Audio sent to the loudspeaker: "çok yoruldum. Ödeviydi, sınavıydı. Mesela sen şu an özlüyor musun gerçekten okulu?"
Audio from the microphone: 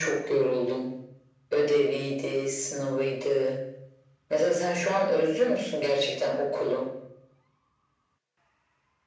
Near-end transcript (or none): none